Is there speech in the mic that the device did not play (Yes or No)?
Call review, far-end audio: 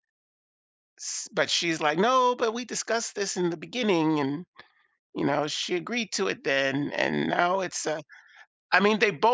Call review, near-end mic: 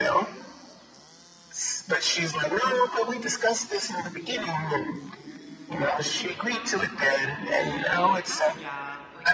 Yes